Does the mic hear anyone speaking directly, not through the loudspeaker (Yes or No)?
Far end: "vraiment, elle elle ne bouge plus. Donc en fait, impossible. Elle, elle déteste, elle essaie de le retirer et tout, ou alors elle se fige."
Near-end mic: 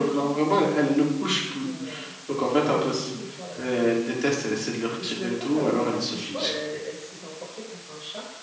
Yes